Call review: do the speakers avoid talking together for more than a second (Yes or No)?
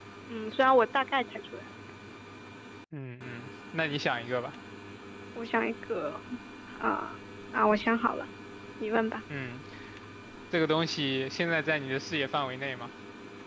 Yes